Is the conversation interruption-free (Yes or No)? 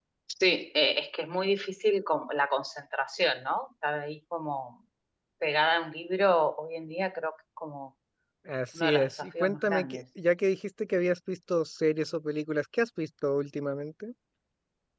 No